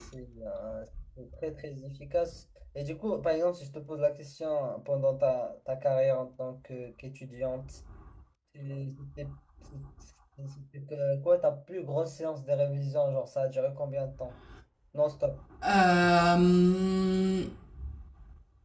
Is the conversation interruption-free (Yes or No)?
Yes